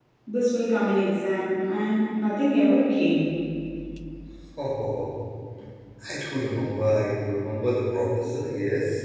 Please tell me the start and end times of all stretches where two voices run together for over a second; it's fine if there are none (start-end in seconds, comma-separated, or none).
none